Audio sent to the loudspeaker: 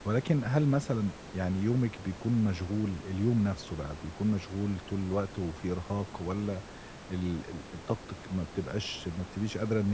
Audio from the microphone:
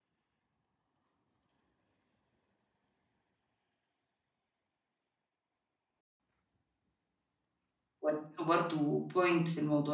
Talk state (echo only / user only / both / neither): user only